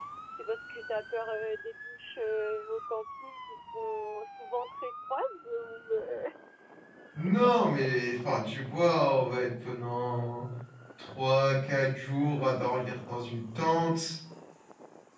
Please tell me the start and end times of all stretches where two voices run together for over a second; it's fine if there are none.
none

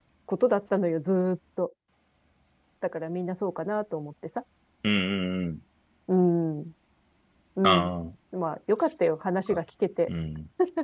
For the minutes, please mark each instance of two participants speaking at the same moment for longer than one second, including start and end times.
none

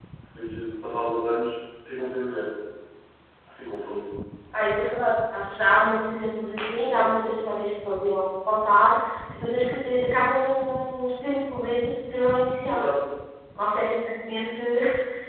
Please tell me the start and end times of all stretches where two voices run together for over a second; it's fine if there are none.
none

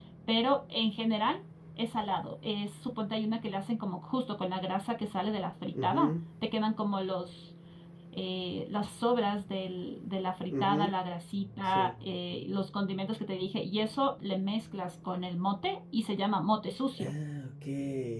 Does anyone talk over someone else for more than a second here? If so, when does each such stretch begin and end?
none

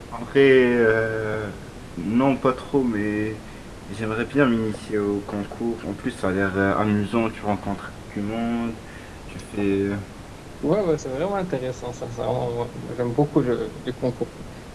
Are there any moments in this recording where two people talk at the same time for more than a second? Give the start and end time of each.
none

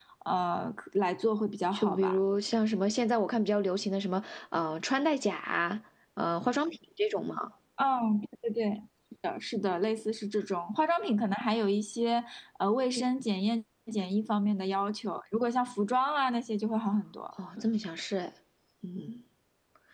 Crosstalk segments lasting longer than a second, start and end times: none

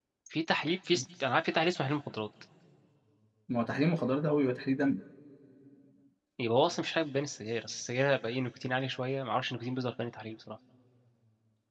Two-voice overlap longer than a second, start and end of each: none

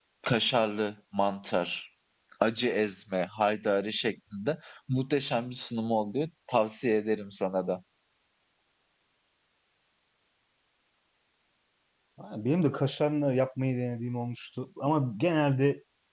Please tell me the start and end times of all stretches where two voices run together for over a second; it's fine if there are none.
none

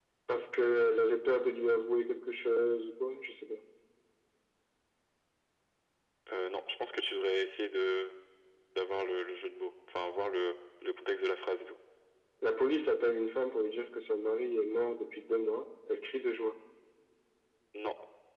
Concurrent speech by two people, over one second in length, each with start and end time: none

